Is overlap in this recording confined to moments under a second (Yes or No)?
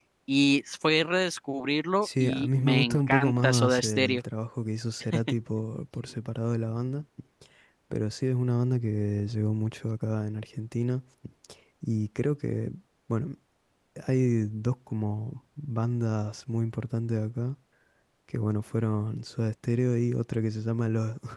No